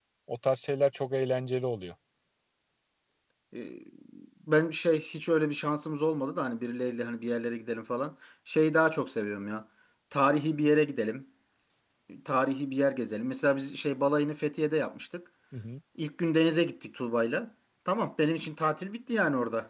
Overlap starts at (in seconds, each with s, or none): none